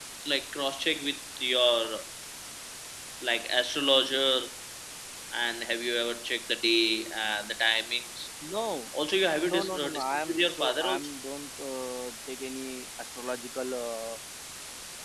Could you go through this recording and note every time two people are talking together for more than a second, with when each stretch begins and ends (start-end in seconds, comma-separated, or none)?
9.5-11.1